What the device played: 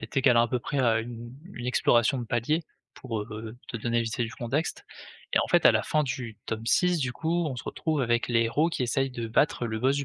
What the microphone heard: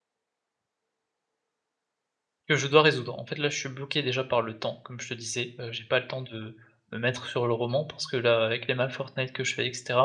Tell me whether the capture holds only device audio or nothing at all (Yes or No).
No